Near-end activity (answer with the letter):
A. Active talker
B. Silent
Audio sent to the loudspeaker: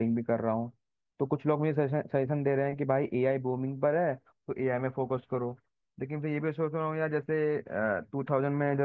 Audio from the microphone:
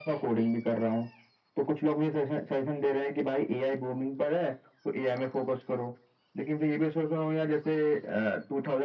B